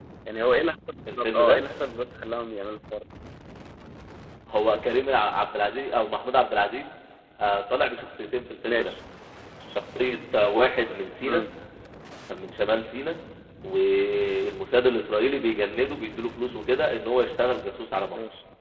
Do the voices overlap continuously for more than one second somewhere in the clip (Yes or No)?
No